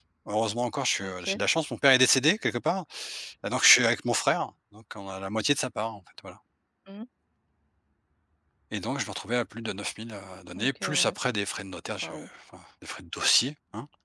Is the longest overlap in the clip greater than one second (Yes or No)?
No